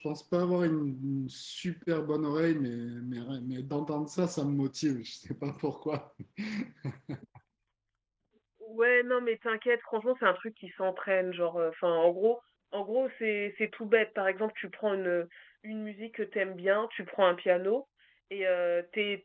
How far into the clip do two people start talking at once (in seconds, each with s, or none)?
none